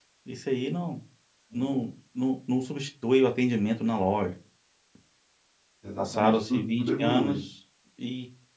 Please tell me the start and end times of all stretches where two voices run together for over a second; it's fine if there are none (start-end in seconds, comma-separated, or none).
6.0-7.4